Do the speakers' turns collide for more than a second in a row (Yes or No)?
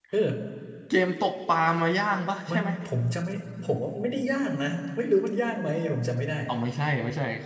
No